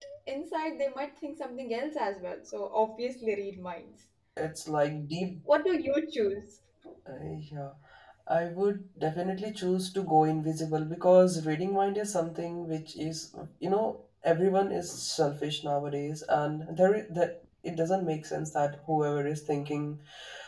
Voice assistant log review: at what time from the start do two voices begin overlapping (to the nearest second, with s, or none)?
none